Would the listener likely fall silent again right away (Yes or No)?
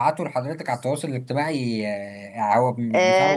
No